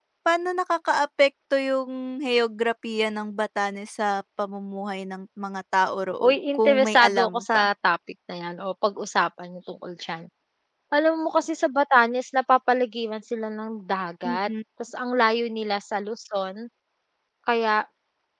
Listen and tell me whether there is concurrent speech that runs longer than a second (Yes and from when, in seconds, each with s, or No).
Yes, from 6.2 s